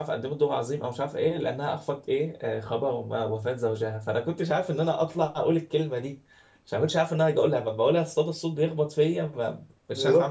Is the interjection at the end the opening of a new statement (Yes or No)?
Yes